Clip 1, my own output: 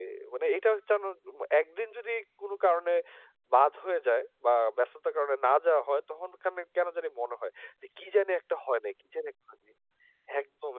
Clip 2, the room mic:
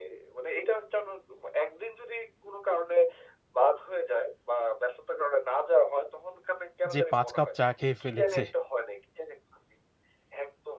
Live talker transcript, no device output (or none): যে ৫ কাপ চা খেয়ে ফেলেছে।